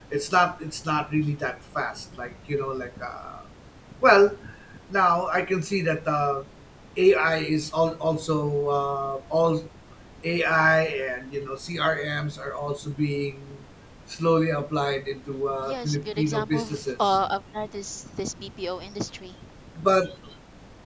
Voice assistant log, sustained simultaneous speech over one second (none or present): present